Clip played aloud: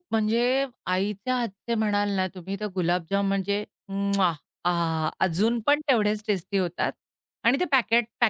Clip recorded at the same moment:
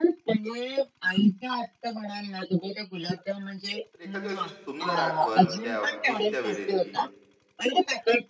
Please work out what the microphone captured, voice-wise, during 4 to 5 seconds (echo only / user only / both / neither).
both